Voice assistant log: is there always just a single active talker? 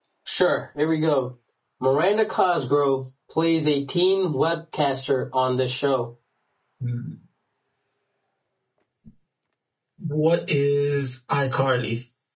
Yes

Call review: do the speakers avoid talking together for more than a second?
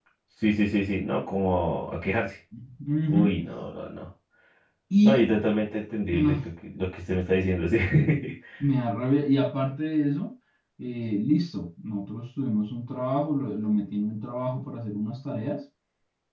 Yes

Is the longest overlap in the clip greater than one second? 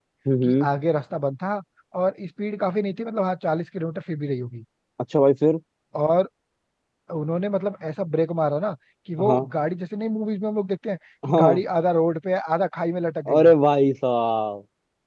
No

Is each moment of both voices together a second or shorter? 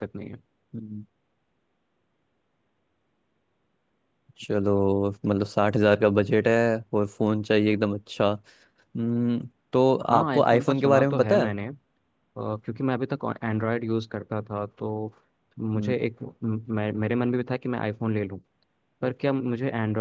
No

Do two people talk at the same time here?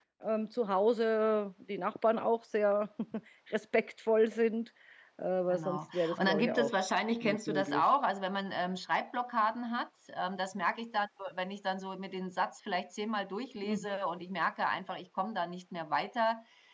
Yes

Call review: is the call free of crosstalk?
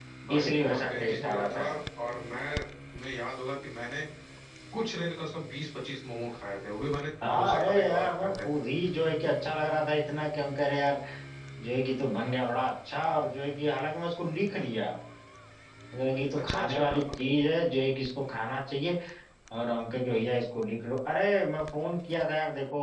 No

